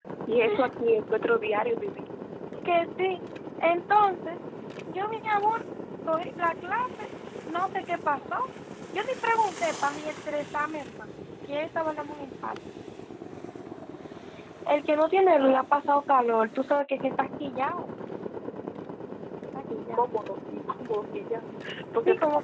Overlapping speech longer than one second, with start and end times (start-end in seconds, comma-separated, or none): none